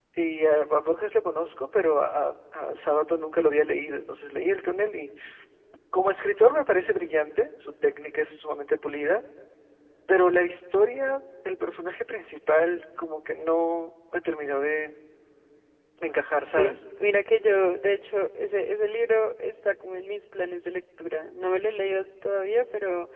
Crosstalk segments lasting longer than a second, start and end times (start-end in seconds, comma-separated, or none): none